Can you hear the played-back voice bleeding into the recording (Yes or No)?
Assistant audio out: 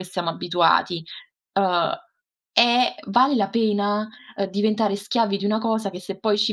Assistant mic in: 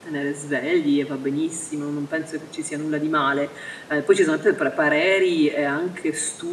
No